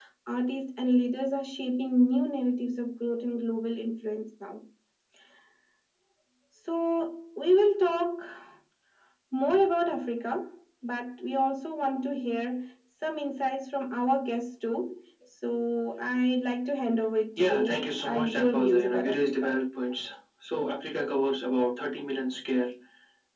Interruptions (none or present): present